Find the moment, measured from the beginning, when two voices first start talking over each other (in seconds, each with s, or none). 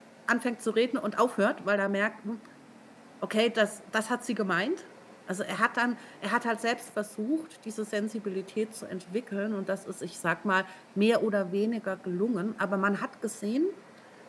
none